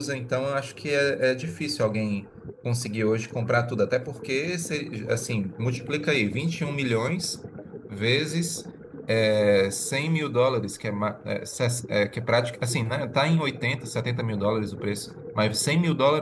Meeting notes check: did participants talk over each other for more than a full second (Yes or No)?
No